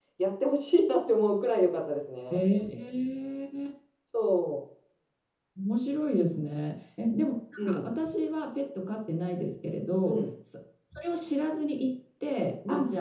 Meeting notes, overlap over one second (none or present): none